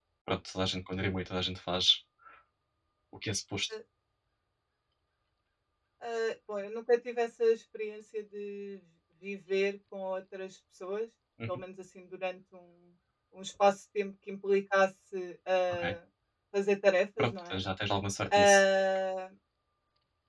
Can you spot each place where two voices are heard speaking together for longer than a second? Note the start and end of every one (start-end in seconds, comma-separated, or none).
none